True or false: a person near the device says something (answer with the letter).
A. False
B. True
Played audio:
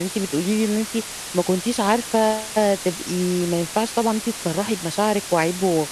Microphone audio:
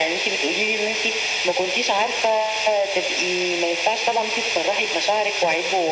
A